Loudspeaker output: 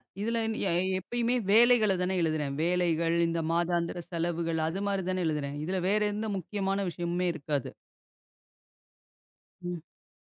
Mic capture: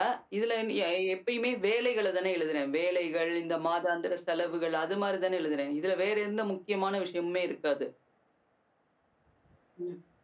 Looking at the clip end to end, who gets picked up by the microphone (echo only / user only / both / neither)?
echo only